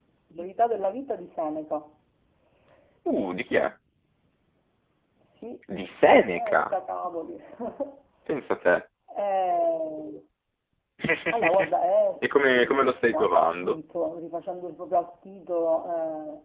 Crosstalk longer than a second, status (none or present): present